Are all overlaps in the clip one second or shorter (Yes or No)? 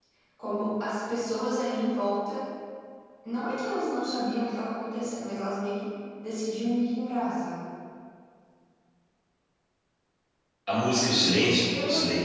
Yes